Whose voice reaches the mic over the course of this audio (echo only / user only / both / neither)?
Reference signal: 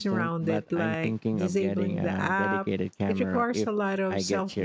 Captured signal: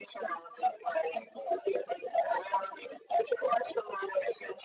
echo only